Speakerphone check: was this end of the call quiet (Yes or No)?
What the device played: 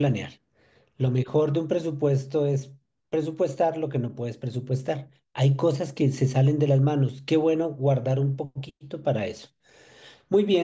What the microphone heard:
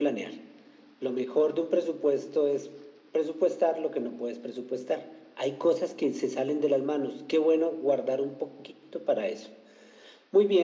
Yes